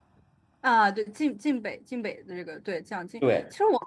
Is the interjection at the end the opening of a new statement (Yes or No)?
No